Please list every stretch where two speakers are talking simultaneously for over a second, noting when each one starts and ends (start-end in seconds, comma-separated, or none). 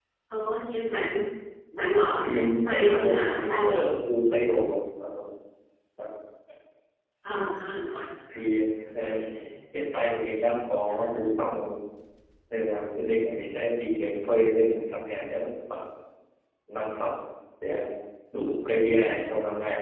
2.2-3.8